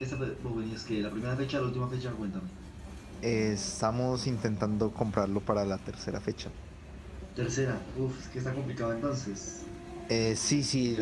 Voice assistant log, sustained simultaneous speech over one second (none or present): none